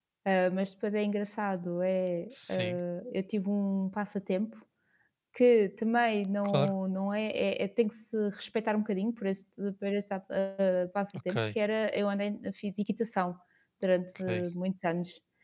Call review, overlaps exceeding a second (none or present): none